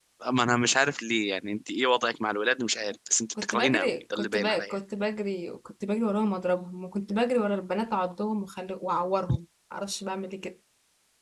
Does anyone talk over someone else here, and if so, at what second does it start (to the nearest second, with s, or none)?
3 s